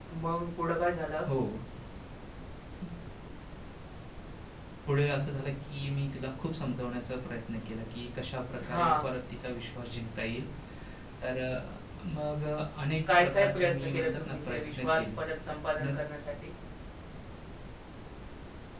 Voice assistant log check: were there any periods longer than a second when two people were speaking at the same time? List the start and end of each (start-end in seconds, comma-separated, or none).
13.2-15.2